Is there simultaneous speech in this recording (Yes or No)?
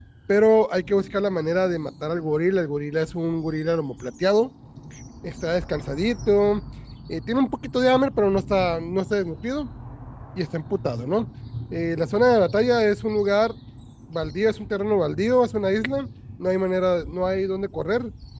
No